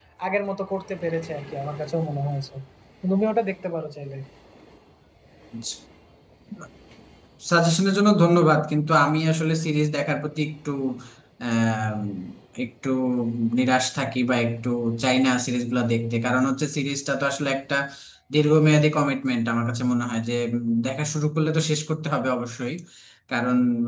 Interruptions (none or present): none